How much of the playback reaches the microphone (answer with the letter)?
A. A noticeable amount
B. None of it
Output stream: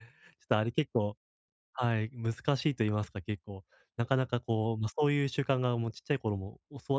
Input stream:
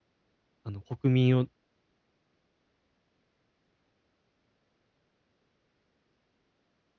B